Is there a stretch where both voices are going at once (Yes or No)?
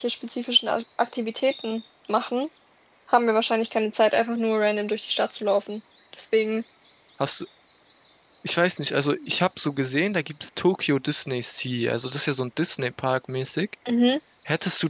No